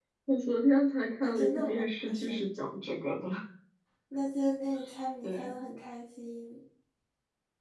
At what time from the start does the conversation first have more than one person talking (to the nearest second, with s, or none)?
1 s